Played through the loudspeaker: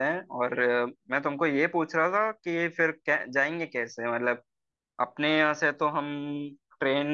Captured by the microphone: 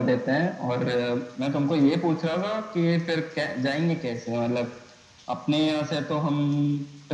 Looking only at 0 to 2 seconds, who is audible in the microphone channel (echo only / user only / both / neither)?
echo only